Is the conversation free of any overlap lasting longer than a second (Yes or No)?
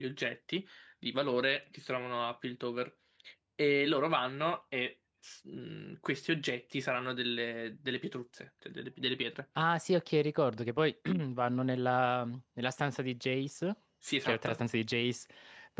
Yes